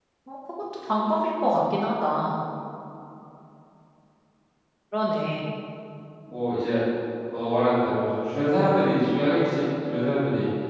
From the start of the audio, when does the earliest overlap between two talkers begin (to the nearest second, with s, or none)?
none